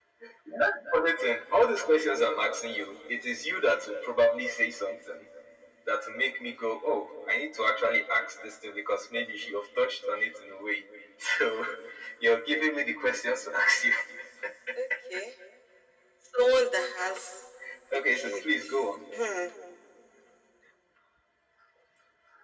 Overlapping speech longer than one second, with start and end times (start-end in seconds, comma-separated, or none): none